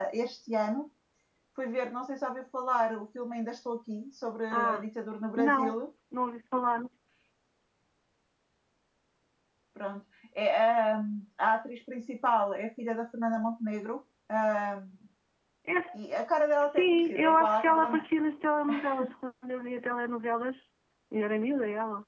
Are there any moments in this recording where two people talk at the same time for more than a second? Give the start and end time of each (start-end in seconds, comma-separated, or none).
16.7-18.0